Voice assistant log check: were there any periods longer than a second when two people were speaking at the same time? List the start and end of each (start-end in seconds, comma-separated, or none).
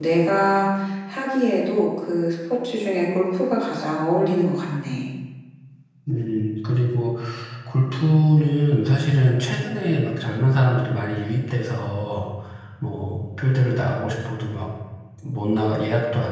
none